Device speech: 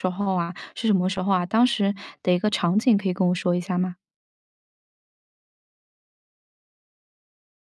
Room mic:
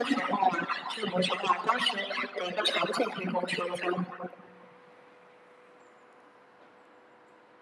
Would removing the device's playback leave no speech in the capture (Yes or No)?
Yes